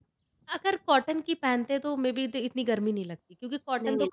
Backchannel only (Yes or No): Yes